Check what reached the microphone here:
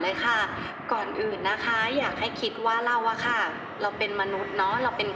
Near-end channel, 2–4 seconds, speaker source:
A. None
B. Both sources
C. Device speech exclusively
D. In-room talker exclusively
C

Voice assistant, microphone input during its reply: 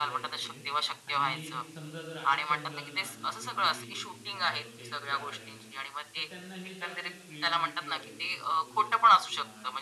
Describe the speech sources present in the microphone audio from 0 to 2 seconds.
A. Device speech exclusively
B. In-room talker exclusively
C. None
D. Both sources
D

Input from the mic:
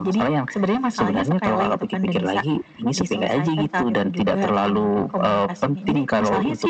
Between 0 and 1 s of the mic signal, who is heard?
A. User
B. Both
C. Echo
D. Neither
C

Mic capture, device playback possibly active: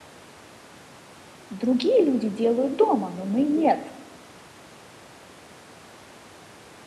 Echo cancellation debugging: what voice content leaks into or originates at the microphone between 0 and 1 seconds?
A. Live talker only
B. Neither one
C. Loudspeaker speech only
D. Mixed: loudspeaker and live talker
B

